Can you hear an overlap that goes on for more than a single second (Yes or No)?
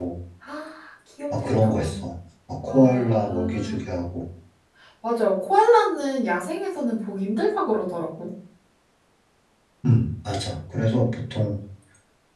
Yes